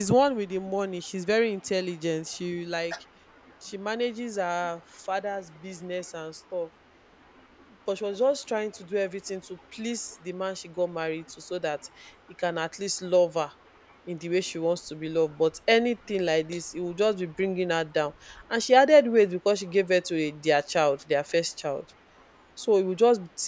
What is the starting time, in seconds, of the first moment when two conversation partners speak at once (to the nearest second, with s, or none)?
none